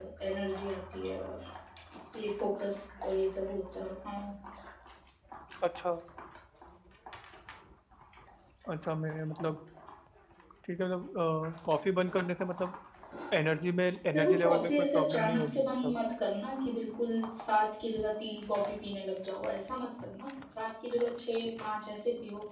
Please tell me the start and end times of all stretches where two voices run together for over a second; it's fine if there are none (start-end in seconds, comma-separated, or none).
14.1-16.0